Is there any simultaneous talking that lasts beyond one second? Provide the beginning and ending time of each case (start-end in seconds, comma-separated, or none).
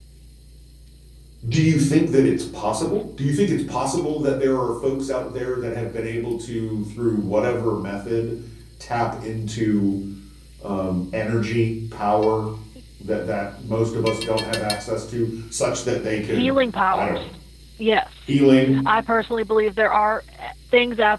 none